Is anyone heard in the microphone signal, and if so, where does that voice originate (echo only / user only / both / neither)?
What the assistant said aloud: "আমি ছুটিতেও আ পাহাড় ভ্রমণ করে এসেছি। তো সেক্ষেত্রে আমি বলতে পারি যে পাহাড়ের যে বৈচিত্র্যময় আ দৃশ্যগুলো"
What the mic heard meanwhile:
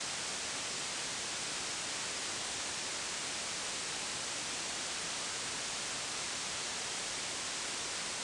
neither